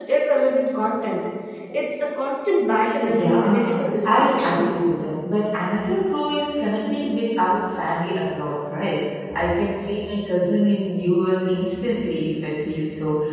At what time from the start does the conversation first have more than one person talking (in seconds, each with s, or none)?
3.1 s